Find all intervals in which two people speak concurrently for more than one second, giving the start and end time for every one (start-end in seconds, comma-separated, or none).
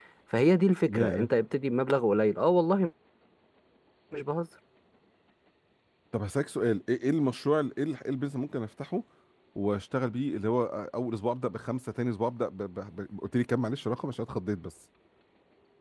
none